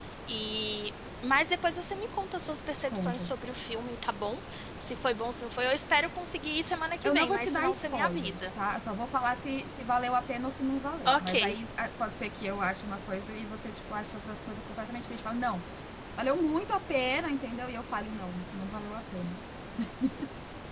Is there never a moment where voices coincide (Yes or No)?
No